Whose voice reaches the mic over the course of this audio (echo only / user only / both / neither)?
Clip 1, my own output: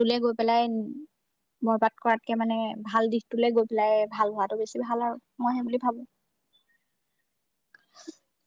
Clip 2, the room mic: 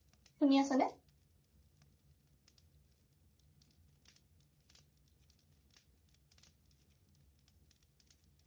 user only